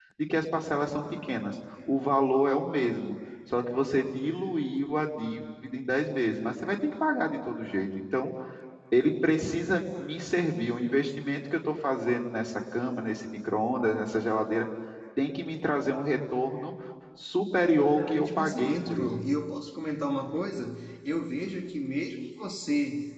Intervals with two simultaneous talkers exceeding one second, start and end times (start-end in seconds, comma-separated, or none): 17.8-19.2